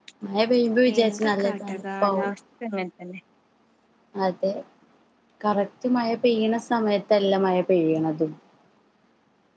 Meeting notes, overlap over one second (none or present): present